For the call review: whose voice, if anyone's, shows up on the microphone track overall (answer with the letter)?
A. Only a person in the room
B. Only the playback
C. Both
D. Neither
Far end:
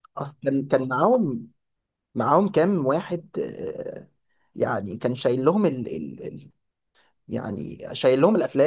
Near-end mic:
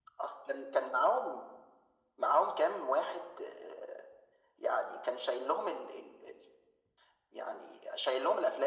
B